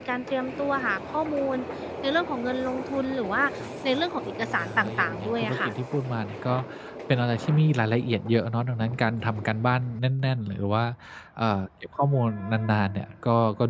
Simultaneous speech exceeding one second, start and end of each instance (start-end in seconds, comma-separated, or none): 3.9-5.7